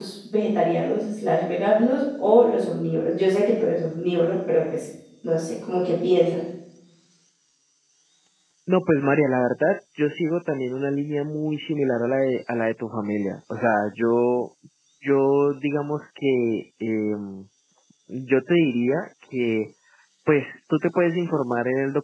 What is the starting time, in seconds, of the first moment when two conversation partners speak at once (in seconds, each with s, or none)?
none